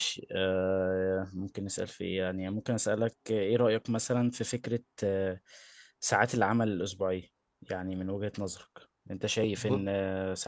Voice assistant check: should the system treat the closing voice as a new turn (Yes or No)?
No